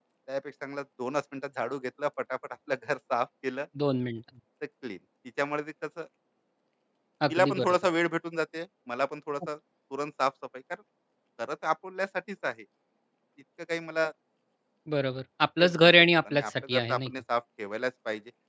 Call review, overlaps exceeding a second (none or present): present